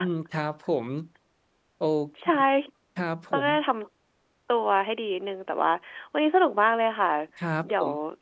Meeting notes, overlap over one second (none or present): none